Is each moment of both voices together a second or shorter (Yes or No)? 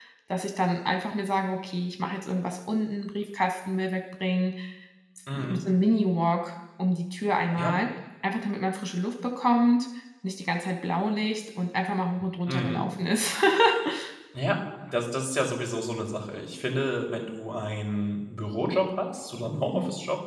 Yes